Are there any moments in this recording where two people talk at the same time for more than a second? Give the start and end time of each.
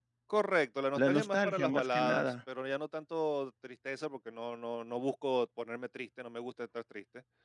1.0-2.3

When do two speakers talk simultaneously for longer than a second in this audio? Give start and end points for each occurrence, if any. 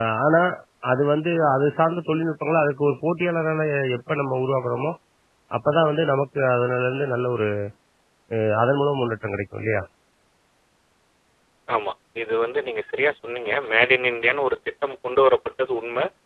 none

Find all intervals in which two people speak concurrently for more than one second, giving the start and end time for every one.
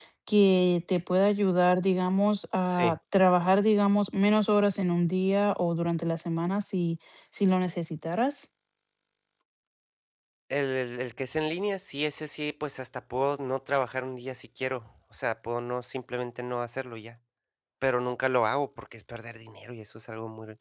none

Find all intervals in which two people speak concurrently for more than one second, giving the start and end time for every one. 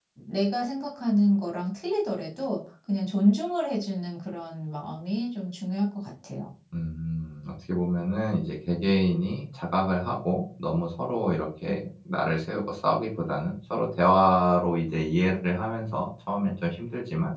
none

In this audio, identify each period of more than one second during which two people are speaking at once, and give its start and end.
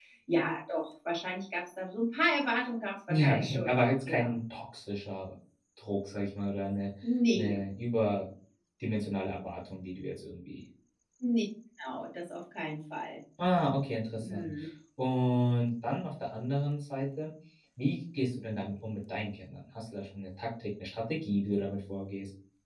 3.1-4.3

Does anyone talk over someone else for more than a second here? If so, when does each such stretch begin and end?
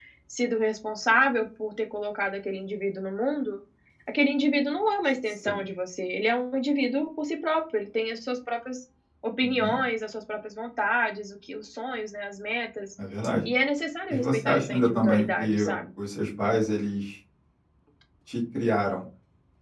14.1-15.6

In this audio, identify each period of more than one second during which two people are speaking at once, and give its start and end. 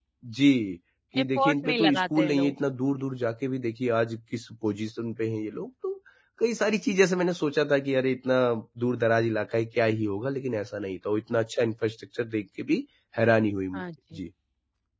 1.2-2.5

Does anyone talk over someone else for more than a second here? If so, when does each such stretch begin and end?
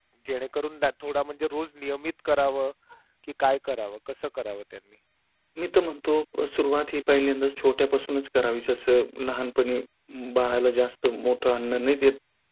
none

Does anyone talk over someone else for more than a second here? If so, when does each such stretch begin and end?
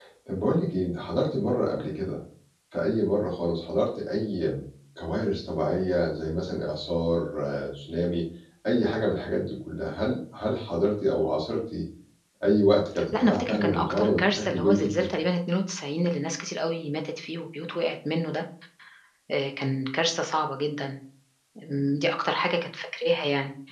13.2-15.1

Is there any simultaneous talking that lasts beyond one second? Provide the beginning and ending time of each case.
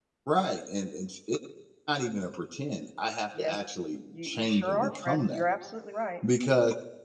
4.2-5.4

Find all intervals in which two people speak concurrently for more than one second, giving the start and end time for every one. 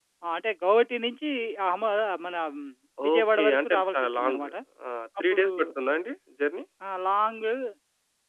3.1-4.4

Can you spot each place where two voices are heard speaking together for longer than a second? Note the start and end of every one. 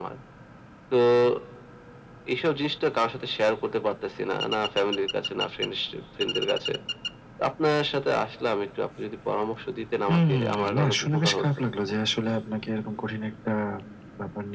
10.1-11.5

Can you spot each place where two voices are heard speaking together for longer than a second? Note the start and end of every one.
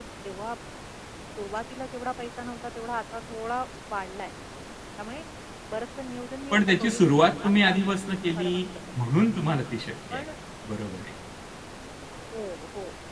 6.5-7.8

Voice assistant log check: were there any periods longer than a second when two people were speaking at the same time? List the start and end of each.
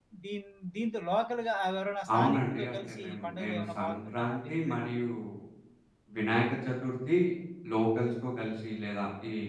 2.1-4.9

